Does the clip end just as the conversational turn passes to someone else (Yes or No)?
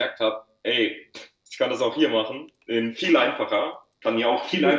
No